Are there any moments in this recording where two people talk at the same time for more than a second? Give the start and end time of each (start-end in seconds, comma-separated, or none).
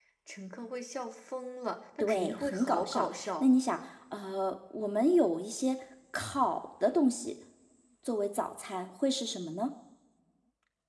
2.0-3.5